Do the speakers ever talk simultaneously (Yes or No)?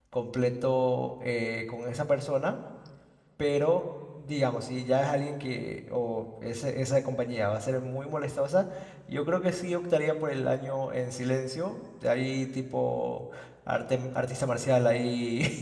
No